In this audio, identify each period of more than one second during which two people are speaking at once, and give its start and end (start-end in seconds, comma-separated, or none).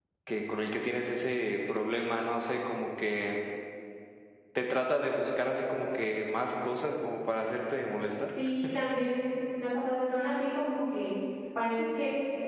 none